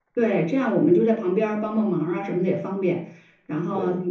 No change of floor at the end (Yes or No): Yes